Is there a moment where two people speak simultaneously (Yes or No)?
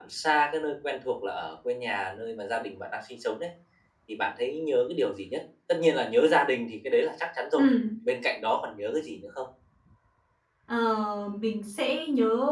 No